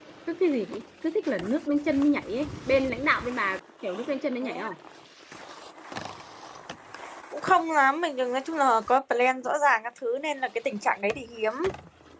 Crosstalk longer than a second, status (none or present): none